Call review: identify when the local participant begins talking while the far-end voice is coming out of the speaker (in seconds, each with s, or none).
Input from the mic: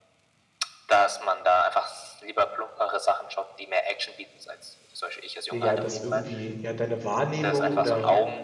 5.5 s